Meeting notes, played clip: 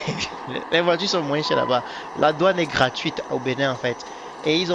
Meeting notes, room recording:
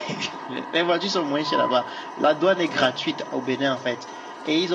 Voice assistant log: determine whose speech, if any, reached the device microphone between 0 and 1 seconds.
echo only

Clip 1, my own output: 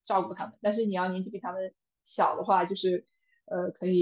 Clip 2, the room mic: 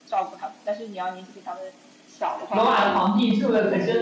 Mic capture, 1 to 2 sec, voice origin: echo only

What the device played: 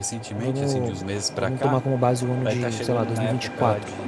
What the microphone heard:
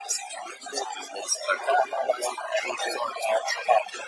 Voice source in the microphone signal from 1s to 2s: echo only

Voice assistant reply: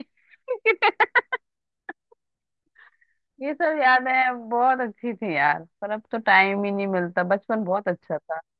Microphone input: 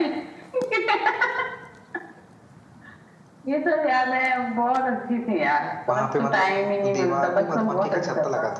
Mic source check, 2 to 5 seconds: echo only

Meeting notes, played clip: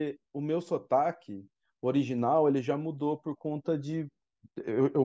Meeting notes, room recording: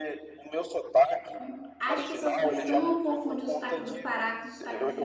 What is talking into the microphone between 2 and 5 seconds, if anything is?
both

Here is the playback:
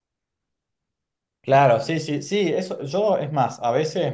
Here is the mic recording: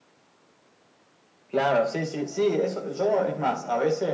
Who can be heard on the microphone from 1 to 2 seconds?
echo only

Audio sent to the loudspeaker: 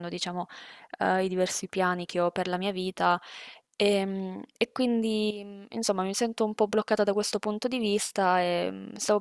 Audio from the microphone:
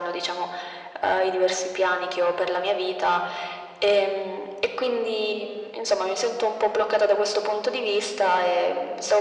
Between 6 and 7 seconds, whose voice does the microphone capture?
echo only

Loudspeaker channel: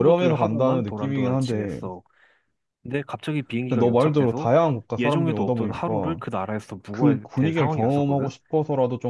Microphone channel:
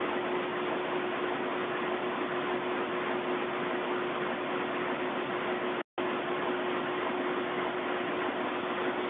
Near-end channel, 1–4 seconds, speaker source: neither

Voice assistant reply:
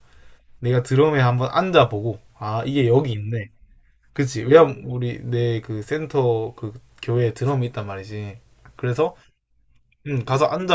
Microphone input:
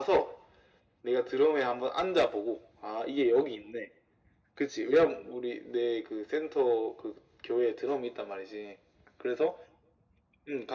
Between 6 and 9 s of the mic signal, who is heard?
echo only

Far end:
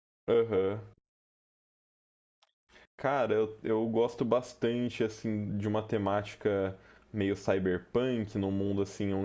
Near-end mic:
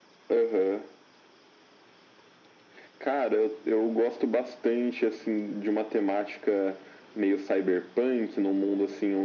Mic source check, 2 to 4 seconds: echo only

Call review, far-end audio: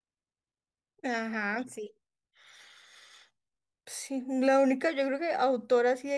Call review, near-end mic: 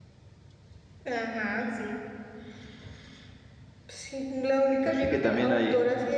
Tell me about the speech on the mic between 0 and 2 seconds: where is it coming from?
echo only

